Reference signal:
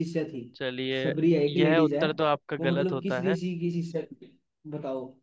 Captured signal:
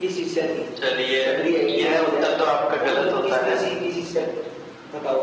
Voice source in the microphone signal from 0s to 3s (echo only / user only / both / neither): echo only